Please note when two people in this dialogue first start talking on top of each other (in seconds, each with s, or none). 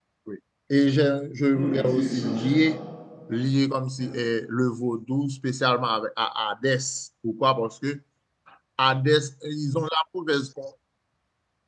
1.5 s